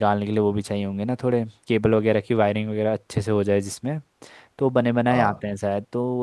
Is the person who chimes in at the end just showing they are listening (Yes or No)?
Yes